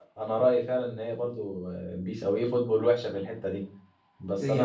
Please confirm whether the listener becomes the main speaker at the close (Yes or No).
No